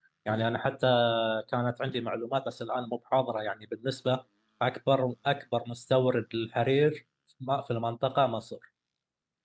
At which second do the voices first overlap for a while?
none

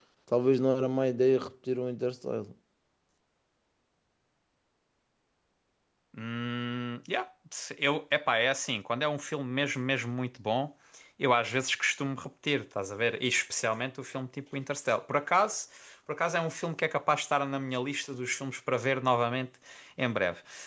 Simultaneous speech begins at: none

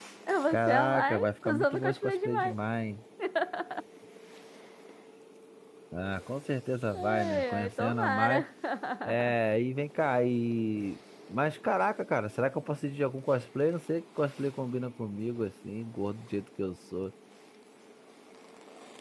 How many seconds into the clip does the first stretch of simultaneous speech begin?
1 s

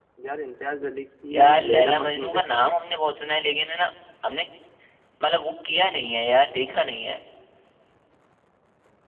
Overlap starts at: 1 s

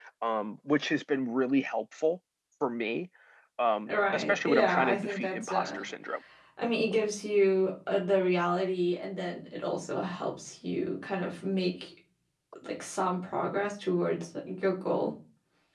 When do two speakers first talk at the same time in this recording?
4 s

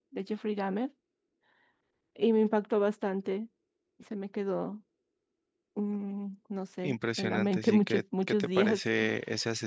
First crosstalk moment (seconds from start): 7 s

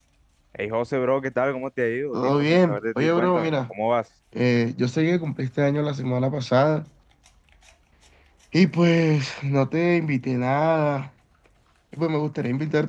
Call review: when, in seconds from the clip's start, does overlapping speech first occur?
2 s

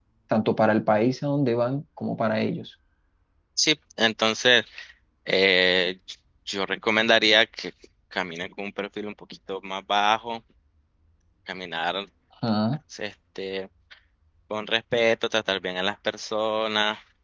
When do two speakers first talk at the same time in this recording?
none

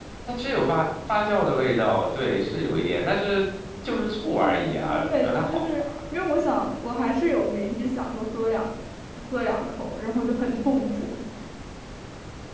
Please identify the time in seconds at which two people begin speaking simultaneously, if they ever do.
4 s

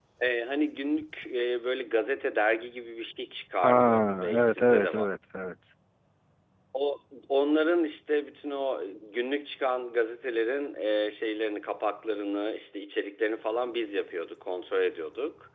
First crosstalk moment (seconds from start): 4 s

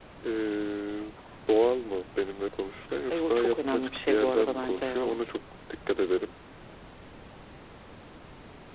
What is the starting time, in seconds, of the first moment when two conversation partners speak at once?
3 s

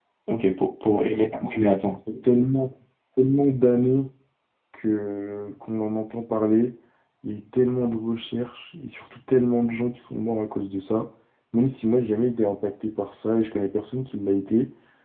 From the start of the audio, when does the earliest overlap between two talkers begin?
none

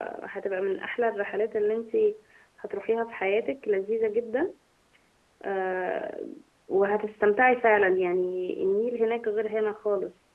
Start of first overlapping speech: none

